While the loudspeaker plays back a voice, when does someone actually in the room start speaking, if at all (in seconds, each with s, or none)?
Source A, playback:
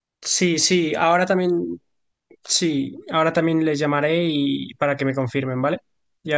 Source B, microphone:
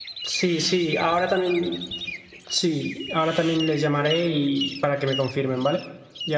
none